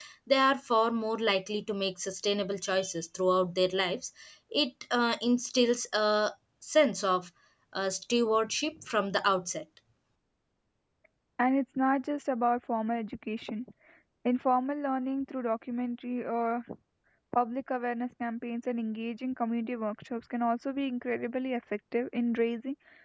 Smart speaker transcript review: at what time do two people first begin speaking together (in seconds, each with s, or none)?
none